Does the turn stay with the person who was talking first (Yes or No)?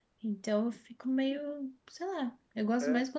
Yes